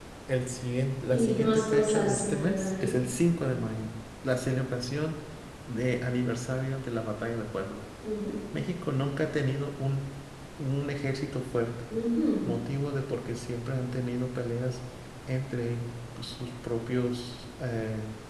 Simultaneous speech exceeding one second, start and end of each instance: 1.1-2.9

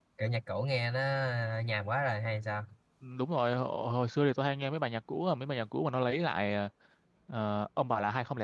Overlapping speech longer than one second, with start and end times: none

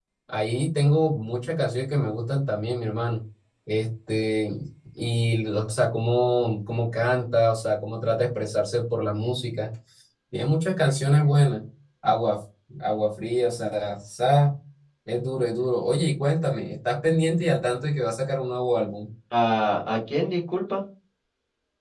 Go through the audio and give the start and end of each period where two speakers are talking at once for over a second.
none

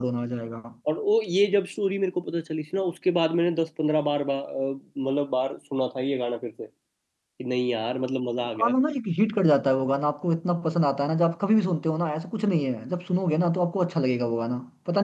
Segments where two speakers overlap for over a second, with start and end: none

